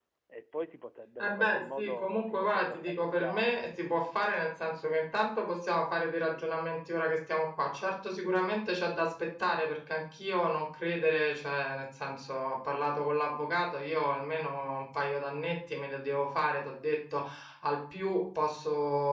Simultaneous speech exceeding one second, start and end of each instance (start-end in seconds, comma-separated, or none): 1.2-3.5